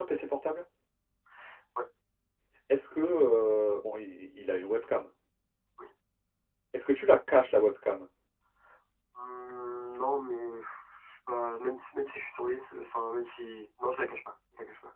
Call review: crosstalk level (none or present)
none